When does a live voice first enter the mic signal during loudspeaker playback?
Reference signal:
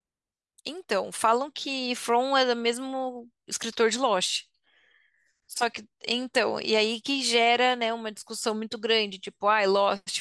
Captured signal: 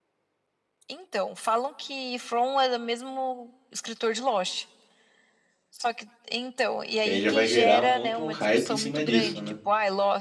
7.0 s

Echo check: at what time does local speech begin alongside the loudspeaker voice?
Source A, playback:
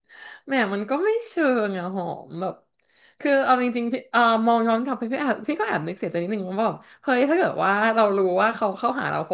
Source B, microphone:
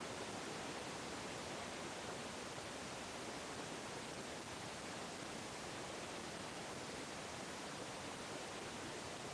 none

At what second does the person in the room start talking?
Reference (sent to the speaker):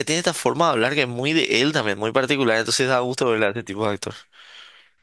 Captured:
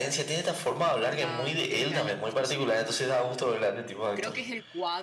1.1 s

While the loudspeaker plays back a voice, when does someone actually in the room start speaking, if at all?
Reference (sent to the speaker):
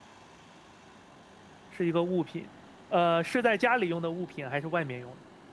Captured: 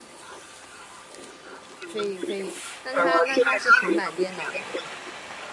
1.8 s

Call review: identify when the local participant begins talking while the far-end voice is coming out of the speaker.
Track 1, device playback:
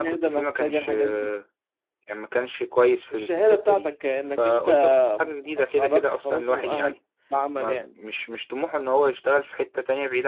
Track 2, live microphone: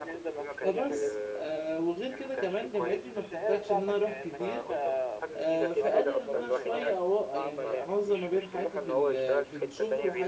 0.5 s

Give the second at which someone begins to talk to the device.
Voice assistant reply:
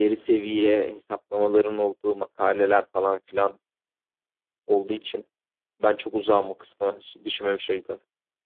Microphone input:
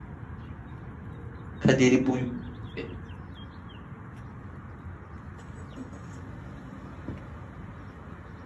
1.6 s

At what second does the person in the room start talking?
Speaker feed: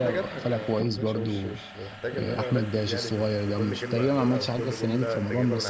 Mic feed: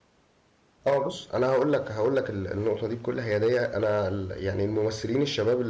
0.9 s

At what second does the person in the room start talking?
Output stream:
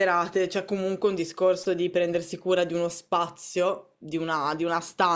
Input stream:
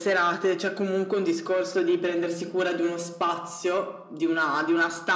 none

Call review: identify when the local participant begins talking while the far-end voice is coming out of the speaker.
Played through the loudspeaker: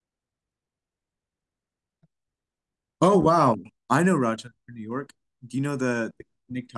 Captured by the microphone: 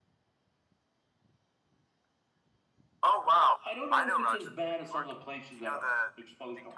3.6 s

